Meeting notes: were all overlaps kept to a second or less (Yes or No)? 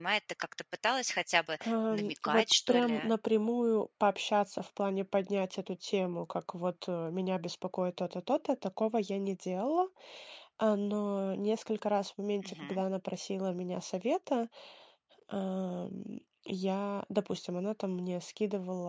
No